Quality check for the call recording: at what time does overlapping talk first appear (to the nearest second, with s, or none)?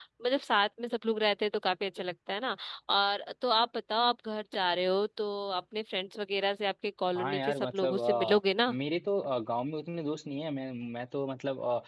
7 s